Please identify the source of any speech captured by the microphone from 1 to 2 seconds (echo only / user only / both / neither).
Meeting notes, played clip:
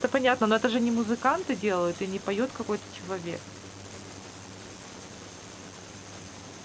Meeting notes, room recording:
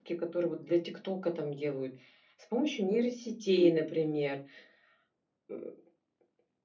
user only